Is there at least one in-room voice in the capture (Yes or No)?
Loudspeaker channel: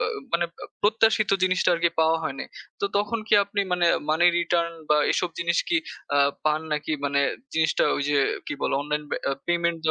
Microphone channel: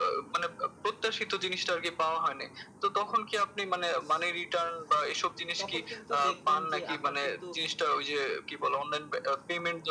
Yes